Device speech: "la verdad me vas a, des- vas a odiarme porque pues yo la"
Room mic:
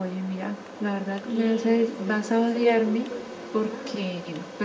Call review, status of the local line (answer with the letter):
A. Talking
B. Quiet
A